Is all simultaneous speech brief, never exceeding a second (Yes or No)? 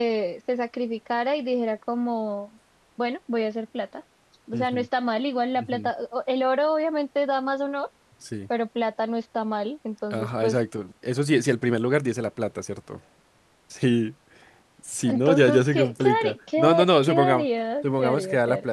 No